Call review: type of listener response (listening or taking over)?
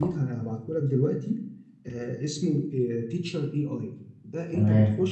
listening